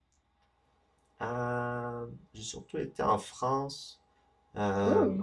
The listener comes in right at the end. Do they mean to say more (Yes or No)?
No